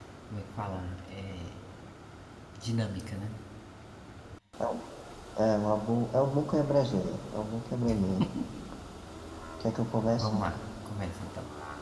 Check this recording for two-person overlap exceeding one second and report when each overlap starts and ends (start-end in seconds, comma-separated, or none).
none